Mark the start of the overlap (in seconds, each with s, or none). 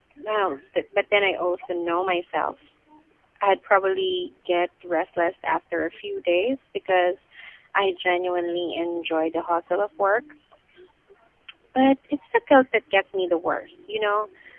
none